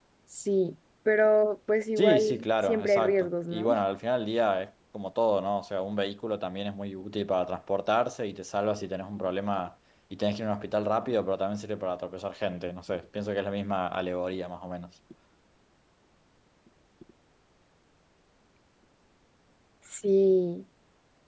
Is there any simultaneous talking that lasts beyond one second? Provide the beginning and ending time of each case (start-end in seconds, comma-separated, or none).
2.0-3.7